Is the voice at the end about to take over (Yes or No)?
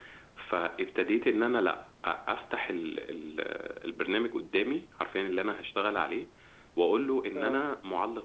No